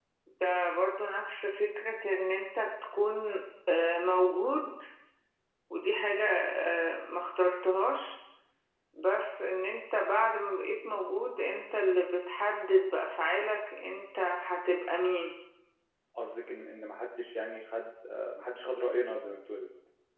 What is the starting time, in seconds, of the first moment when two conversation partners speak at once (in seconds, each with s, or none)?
none